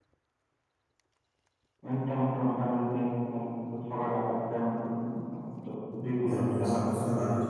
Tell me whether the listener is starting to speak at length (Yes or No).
Yes